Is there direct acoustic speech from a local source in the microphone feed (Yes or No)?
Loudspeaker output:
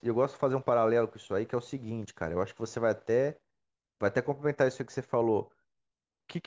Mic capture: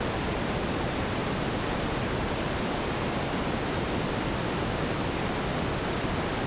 No